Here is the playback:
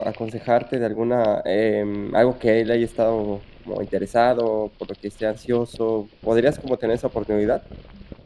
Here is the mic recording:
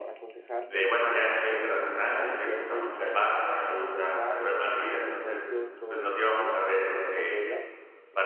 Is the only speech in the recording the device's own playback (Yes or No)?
No